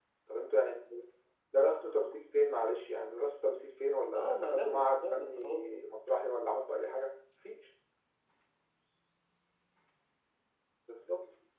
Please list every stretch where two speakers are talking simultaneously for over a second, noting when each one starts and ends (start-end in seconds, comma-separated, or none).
4.2-5.8